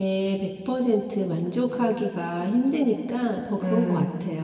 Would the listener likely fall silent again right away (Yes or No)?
No